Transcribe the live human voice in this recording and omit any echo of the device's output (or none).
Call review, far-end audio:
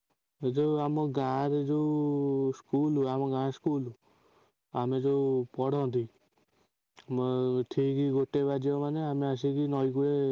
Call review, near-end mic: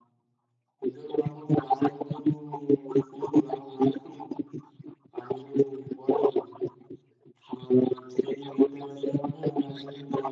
none